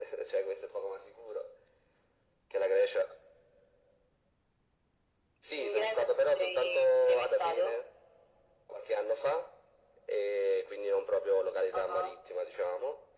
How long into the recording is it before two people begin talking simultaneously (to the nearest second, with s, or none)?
6 s